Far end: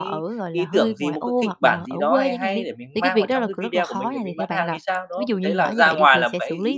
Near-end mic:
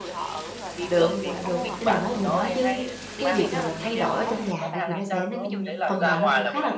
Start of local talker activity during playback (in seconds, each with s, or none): 0.8 s